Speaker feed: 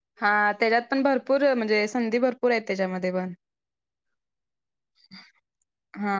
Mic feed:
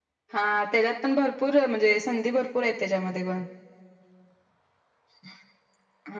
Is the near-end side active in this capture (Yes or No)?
No